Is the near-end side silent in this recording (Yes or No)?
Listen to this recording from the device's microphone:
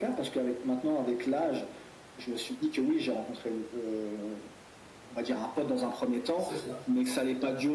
No